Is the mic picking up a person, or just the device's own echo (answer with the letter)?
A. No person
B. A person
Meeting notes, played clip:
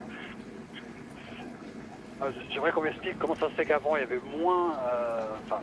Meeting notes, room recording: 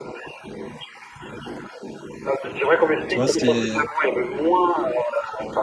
B